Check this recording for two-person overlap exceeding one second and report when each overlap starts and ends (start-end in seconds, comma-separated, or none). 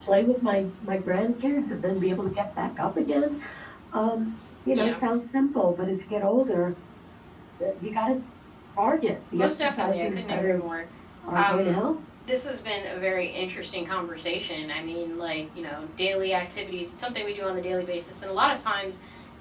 9.4-10.6